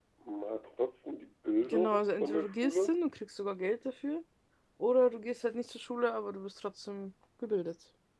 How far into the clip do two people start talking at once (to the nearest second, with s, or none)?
2 s